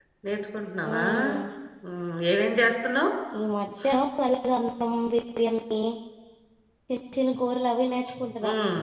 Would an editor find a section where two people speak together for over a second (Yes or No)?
No